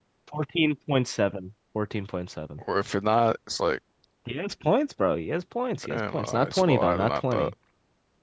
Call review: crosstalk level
present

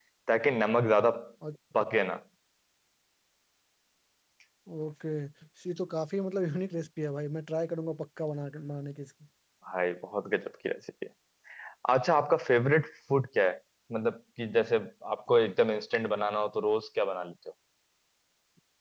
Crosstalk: none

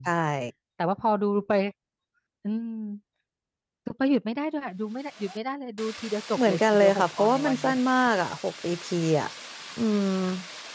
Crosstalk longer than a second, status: present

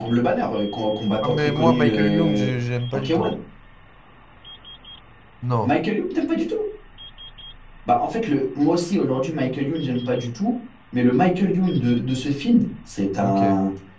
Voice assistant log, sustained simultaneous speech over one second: present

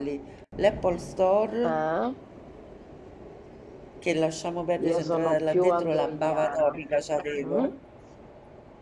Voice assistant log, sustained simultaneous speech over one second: present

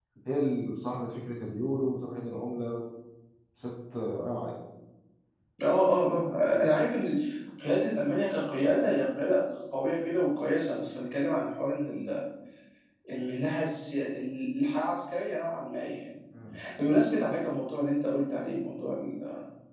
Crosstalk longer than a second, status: none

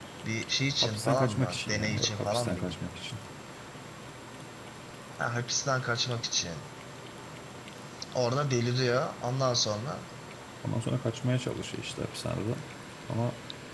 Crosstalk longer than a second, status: present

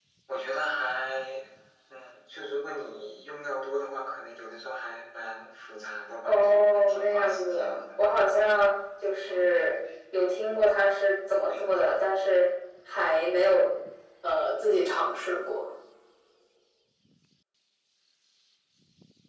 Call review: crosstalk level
present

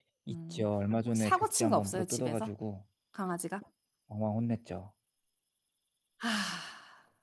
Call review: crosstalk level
present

